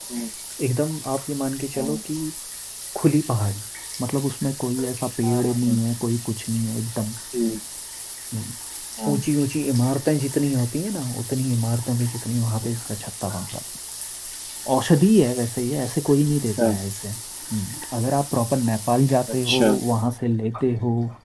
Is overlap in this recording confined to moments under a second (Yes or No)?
Yes